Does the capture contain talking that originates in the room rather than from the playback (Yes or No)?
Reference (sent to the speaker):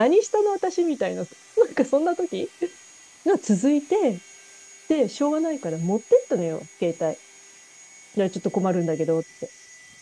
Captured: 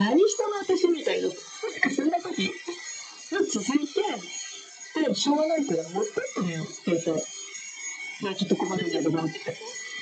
Yes